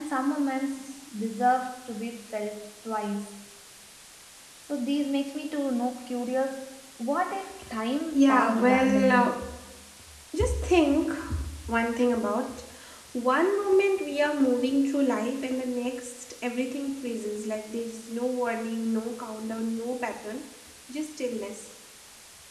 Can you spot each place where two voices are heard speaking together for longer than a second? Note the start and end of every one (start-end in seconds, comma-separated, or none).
8.1-9.4